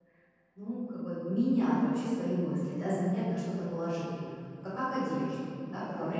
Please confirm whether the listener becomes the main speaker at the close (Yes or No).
No